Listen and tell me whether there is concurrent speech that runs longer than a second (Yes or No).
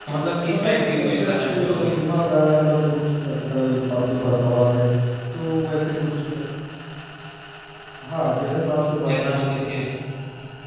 Yes